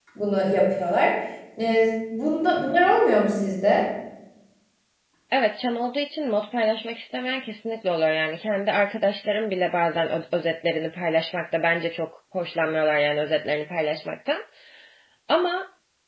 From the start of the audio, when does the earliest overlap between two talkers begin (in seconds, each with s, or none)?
none